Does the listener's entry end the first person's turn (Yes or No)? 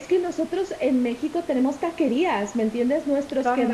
No